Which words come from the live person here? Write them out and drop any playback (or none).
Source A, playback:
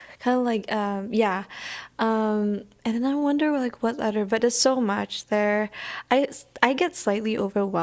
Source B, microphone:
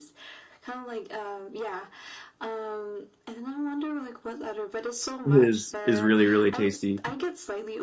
is is really really tasty.